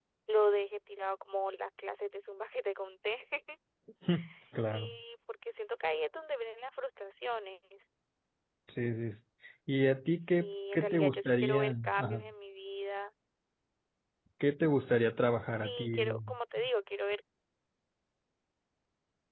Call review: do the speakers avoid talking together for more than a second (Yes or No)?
No